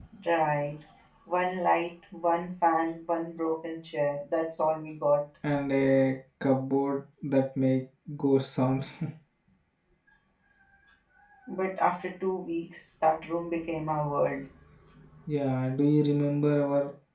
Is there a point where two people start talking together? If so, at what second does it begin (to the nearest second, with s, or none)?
none